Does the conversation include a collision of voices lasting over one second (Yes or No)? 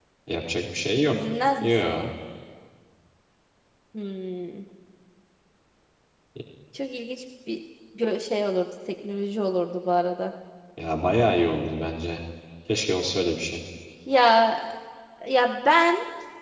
No